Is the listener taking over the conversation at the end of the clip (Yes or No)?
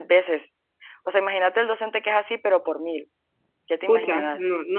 Yes